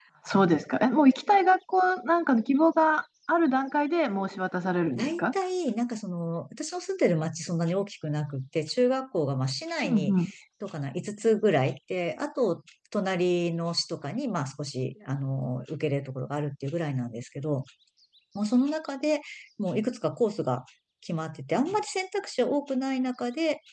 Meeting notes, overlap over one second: none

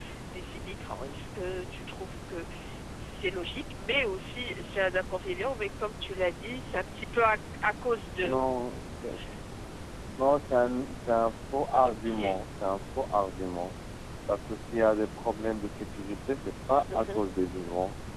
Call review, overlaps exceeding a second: none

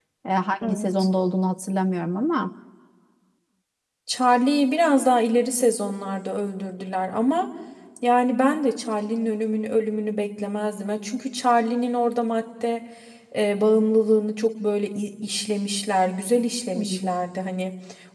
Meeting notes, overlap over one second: none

